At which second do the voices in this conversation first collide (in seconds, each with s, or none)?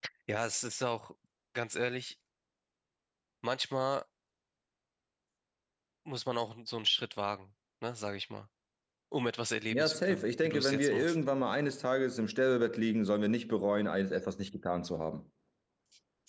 9.7 s